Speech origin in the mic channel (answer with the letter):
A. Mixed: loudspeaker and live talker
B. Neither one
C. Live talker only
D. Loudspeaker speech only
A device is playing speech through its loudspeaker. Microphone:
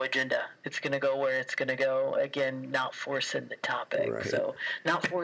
A